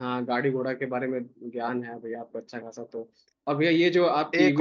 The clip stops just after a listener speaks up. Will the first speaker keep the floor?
Yes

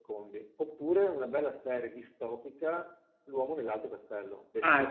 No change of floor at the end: No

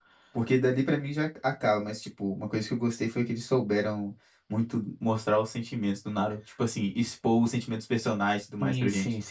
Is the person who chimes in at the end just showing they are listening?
No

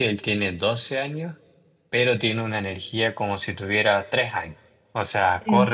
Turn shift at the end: No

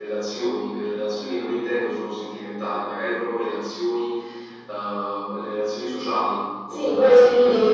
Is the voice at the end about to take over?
Yes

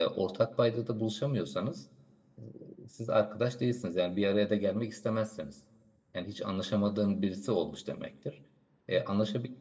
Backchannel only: Yes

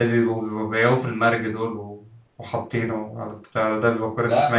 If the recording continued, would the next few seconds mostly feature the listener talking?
Yes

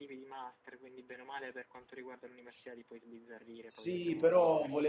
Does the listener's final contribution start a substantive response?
Yes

